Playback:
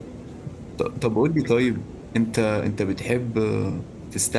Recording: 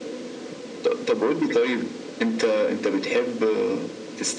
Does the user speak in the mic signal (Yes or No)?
No